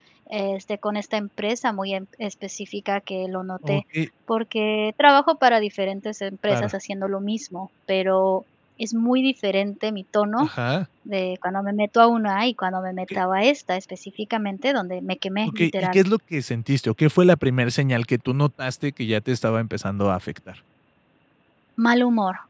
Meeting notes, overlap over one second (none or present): none